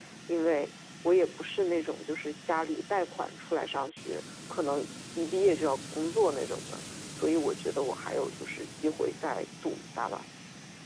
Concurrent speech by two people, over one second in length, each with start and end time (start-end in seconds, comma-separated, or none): none